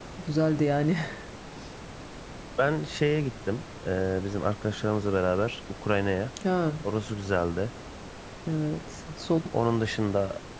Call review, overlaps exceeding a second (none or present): none